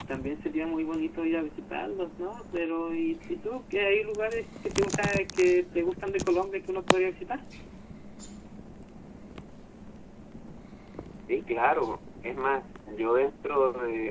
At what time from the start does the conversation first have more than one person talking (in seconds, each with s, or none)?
none